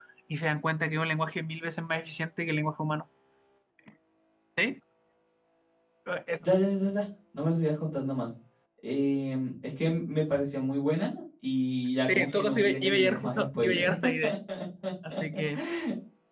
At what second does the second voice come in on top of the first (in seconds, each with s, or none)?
12.1 s